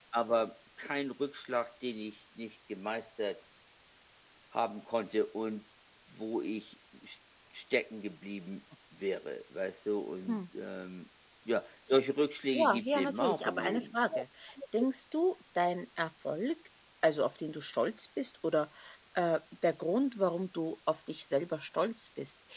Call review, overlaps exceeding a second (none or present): present